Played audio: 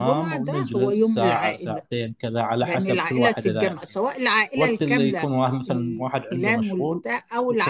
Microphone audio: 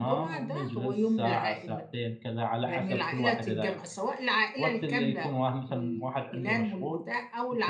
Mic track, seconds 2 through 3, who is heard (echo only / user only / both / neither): echo only